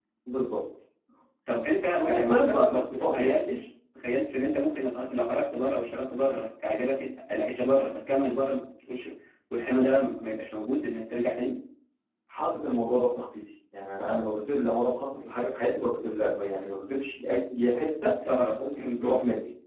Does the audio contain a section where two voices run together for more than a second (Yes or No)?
Yes